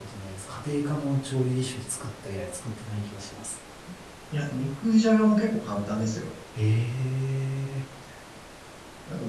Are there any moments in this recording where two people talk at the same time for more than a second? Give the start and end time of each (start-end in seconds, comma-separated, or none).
none